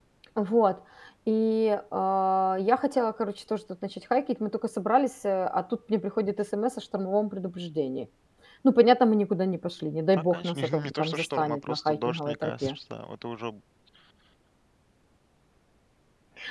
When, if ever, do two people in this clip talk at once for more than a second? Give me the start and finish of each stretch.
10.1-12.8

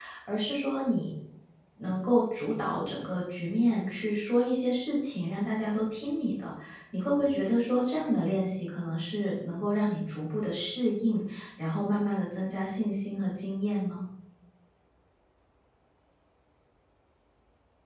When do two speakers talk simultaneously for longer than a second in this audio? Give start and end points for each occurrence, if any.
none

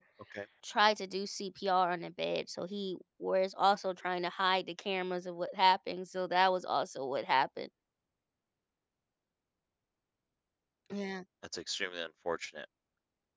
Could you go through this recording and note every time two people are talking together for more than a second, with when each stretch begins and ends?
none

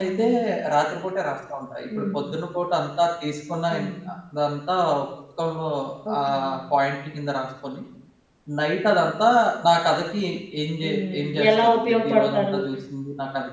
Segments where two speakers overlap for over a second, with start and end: 10.8-12.5

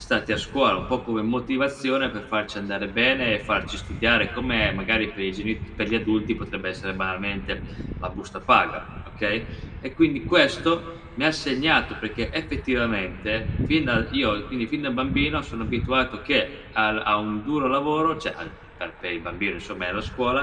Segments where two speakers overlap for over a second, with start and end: none

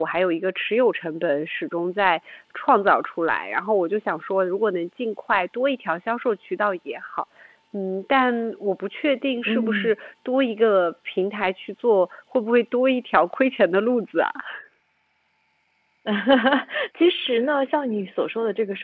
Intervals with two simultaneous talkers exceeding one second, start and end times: none

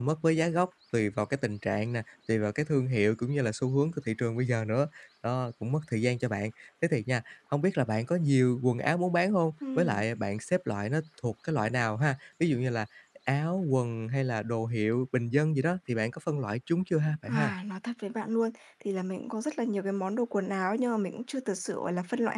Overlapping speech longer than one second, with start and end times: none

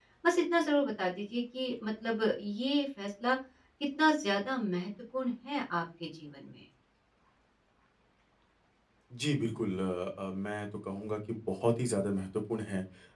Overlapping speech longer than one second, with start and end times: none

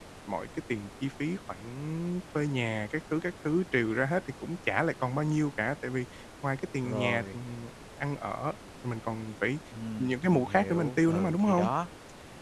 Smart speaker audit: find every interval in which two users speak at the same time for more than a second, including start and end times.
10.0-11.7

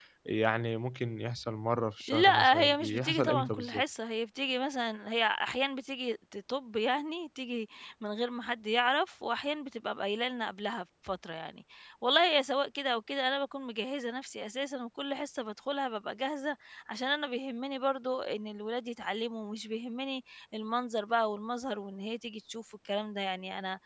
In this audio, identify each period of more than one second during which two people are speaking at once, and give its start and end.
2.1-3.8

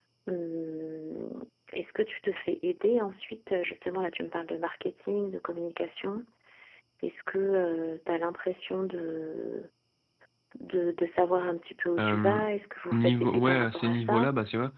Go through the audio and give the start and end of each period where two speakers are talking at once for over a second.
12.9-14.3

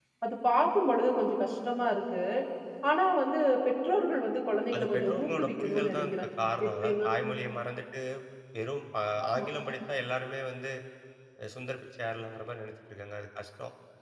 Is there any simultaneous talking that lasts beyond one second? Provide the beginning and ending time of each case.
4.7-6.1

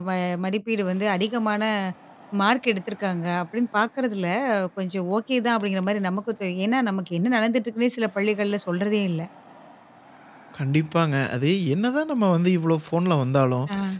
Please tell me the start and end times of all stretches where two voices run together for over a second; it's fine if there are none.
none

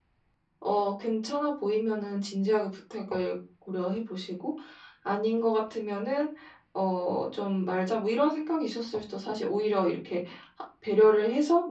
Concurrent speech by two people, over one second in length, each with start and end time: none

